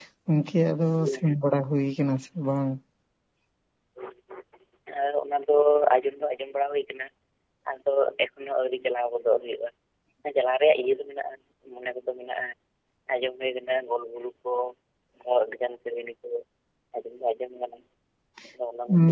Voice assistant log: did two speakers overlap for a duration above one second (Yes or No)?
No